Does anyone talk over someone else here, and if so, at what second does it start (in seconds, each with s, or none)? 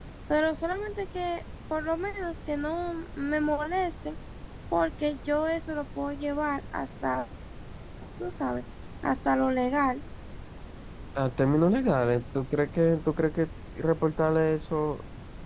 none